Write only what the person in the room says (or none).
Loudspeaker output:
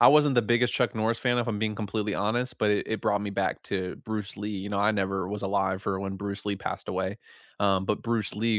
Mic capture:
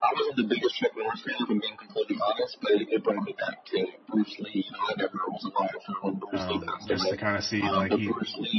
um, just to kind of see, like, he,